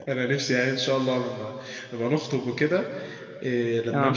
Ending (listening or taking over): listening